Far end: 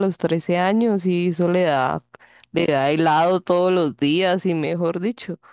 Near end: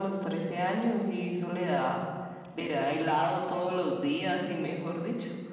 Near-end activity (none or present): none